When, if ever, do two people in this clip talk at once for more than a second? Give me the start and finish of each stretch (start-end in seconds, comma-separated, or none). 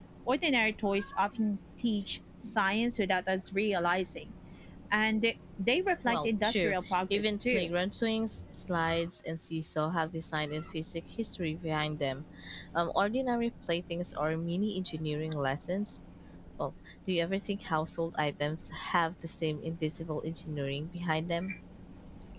6.1-7.7